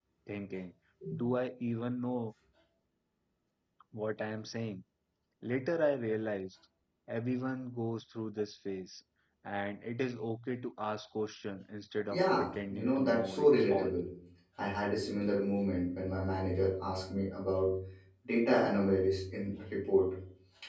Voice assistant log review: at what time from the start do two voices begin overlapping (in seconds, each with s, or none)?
12.1 s